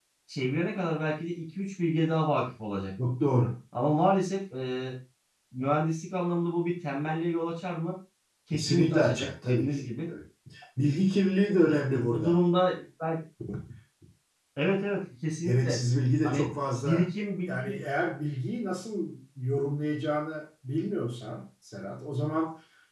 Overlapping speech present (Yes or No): Yes